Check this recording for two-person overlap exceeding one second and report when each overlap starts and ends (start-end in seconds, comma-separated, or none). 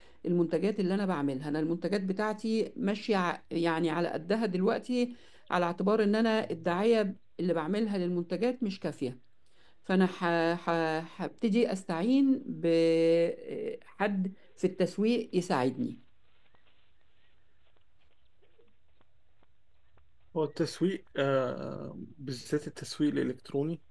none